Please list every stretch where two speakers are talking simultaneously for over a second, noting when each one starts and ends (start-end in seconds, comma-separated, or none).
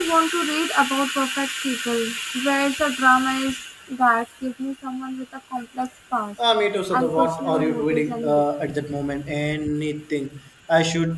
6.9-8.4